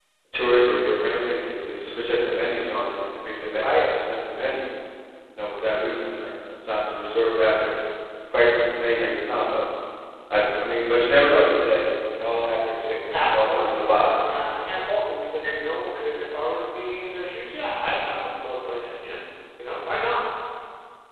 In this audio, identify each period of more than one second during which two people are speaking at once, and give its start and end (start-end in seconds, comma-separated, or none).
13.1-14.4